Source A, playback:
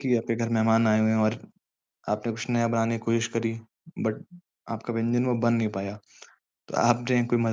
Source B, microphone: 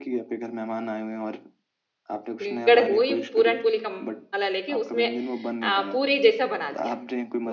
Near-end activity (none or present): present